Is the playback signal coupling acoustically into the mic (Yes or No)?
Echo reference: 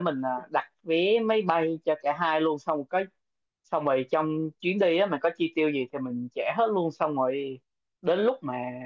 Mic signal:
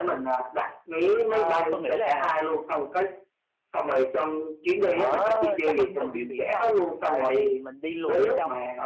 Yes